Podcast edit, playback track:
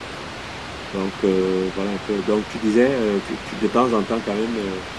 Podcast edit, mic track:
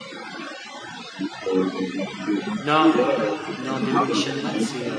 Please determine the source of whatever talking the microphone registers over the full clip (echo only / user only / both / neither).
both